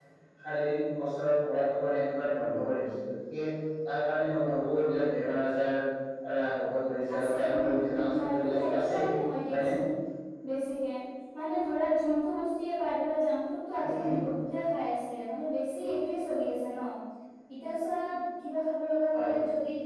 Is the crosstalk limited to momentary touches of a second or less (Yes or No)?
No